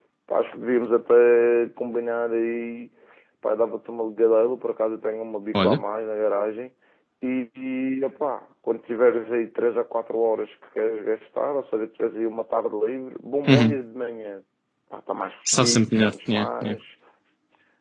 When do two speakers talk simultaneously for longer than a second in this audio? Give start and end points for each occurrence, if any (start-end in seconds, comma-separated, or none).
15.5-16.8